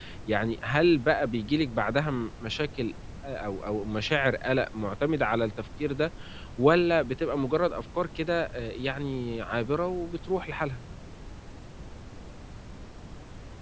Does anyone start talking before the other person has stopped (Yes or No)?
No